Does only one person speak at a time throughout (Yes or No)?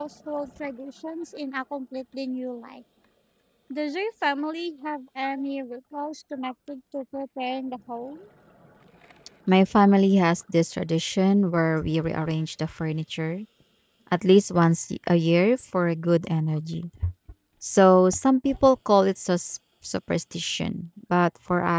Yes